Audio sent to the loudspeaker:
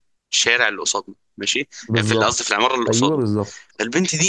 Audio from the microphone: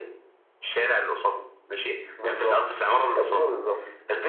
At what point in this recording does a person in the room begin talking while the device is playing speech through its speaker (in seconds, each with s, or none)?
none